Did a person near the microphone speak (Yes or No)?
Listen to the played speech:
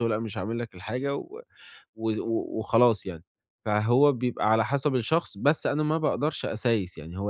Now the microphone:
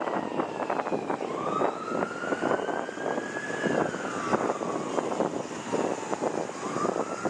No